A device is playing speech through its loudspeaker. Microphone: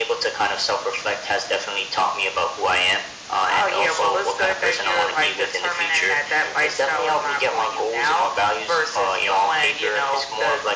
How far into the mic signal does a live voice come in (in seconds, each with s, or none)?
none